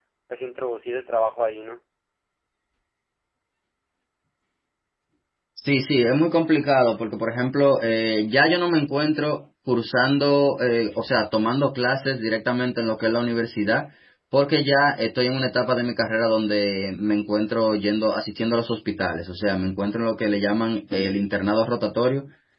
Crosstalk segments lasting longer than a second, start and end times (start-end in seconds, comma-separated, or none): none